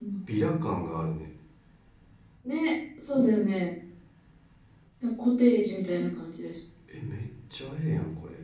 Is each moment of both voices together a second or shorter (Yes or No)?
Yes